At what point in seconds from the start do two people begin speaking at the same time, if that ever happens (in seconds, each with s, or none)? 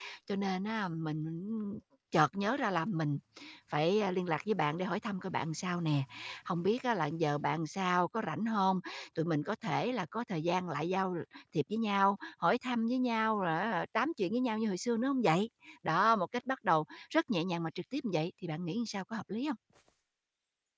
none